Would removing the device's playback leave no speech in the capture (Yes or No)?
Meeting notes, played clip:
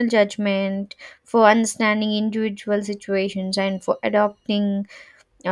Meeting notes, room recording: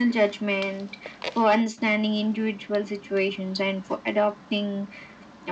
Yes